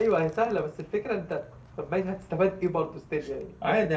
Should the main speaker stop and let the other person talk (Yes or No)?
Yes